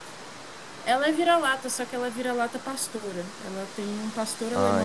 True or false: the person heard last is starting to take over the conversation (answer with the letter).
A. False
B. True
B